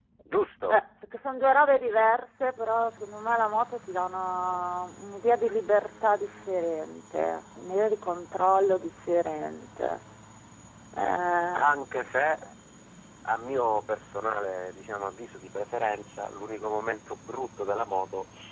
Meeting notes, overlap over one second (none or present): none